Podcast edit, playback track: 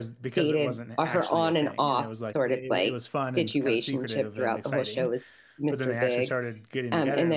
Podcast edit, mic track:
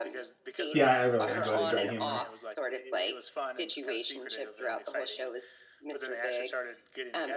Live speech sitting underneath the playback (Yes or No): No